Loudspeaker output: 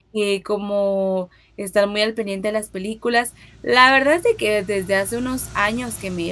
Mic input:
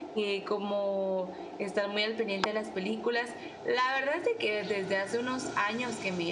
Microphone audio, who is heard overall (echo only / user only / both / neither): echo only